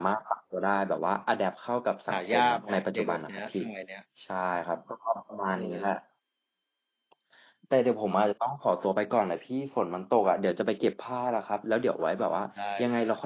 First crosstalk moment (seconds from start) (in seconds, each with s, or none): 2.1 s